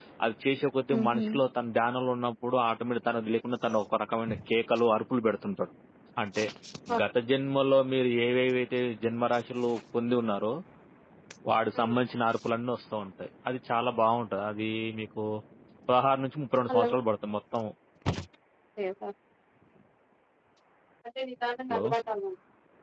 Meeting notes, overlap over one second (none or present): none